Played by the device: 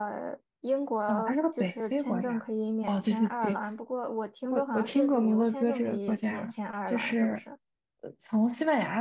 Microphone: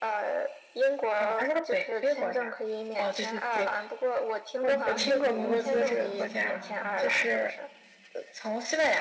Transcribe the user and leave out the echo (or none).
你你你有计划想去荷兰吗？